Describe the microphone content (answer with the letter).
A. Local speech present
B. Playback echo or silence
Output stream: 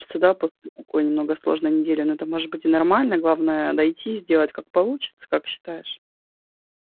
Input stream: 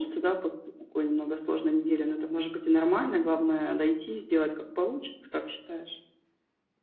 B